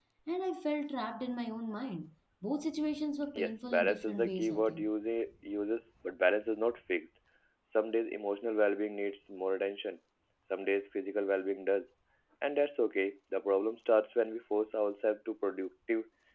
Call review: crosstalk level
present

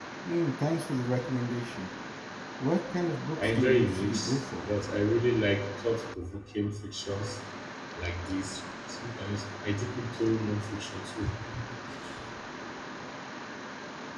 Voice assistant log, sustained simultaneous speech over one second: present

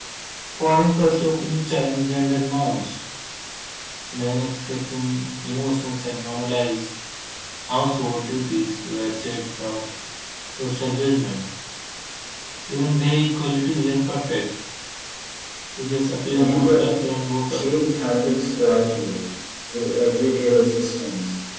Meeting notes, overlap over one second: present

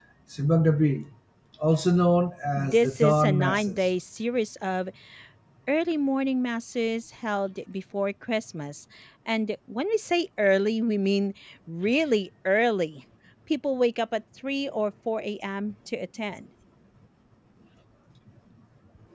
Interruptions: present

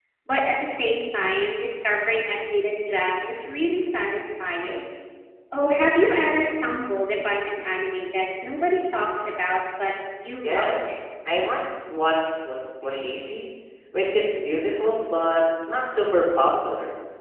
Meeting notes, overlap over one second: none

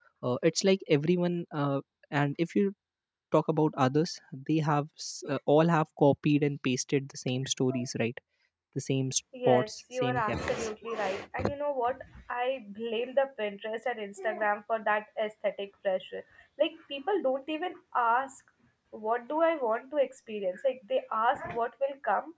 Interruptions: present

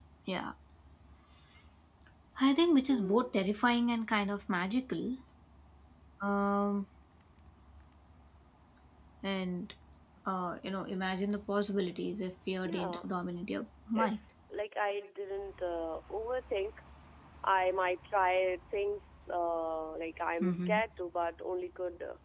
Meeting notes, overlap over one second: none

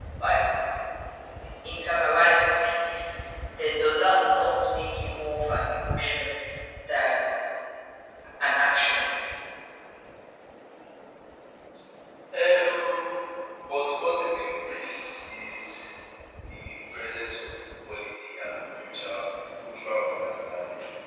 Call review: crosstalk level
none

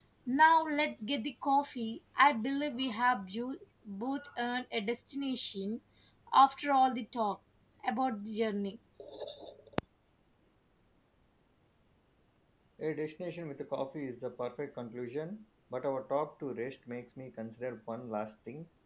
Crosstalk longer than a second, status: none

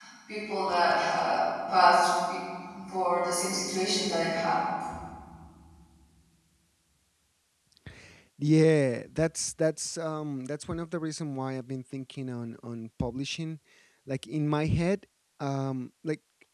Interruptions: none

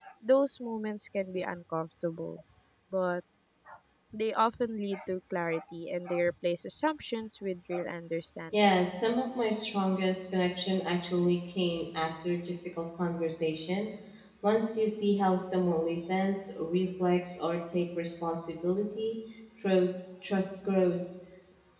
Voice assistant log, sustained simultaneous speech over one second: none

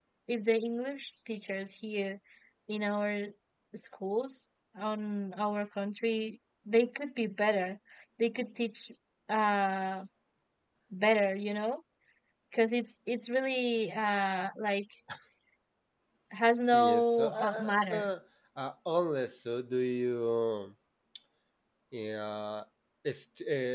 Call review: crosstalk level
present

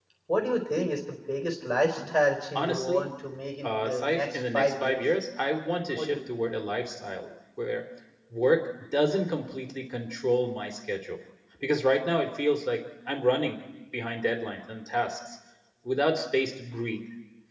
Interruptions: present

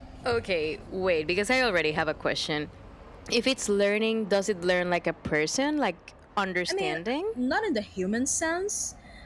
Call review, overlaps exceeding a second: none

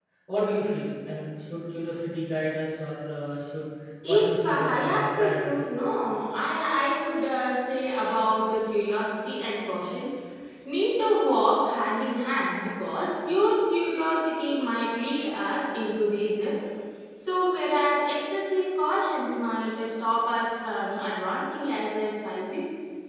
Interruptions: present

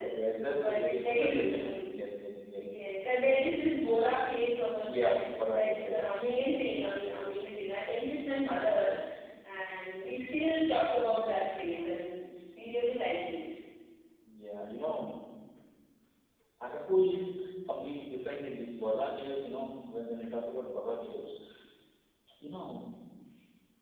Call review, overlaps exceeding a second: present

